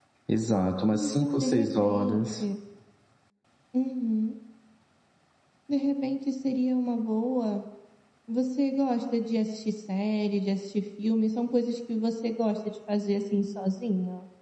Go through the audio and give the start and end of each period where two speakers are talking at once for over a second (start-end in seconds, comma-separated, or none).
0.9-2.4